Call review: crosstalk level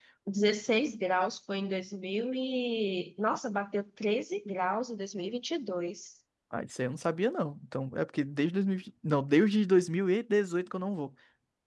none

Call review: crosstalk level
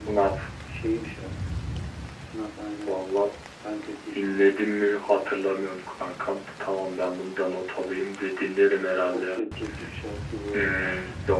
present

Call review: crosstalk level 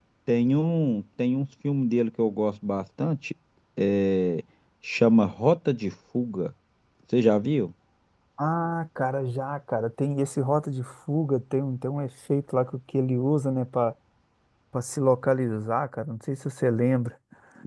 none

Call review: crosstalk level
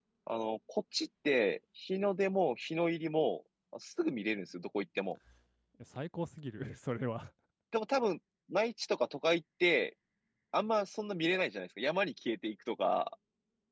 none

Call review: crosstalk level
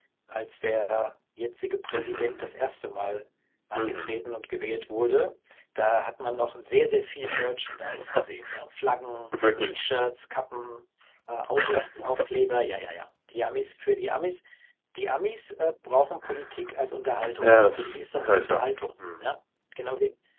present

